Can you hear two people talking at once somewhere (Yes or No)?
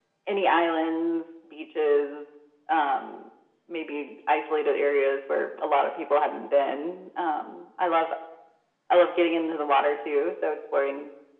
No